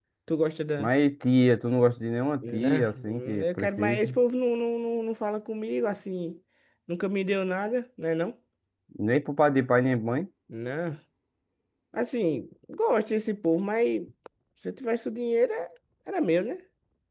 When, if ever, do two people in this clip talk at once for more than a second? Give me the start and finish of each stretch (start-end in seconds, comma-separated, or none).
2.4-4.2